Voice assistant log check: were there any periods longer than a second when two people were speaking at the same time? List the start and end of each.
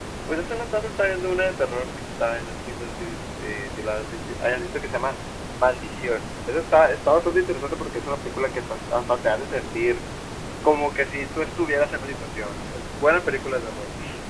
none

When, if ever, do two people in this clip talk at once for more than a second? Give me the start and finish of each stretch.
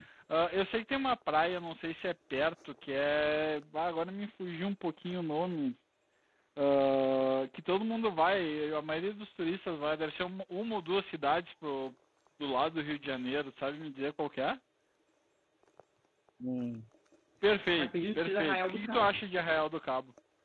17.8-19.2

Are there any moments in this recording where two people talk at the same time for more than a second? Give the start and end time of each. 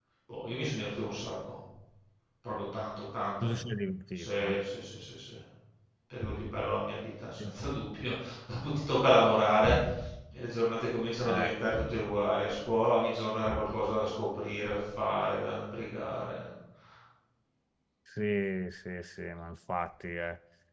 none

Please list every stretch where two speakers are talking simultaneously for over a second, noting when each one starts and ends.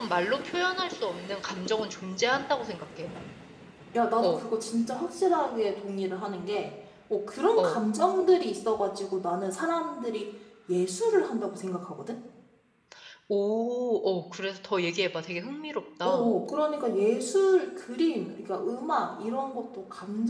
none

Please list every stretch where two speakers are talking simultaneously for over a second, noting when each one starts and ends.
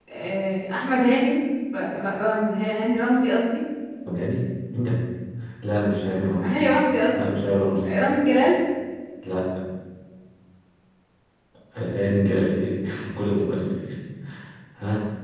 none

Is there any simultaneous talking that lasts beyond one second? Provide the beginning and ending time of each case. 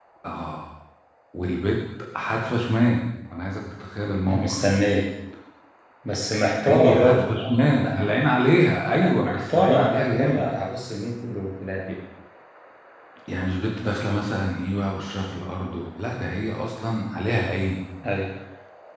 6.6-8.0, 9.0-10.5

